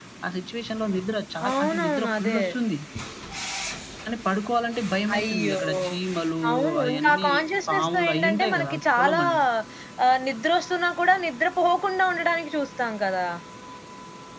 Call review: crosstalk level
present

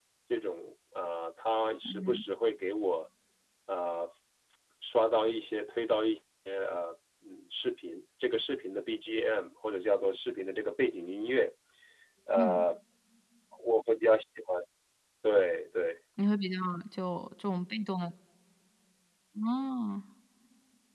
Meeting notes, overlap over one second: none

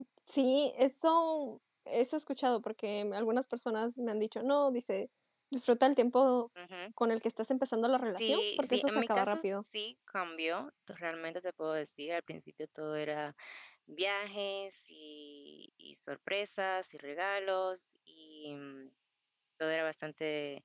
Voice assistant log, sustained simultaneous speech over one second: present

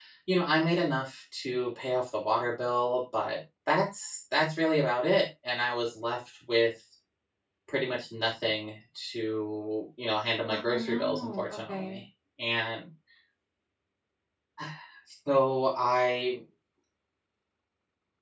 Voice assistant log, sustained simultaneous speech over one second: present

